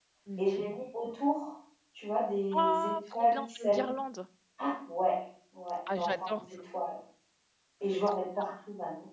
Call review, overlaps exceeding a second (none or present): present